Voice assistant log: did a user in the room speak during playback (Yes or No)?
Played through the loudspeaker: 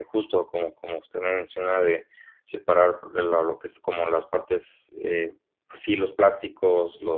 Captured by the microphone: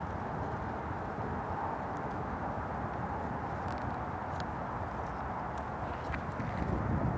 No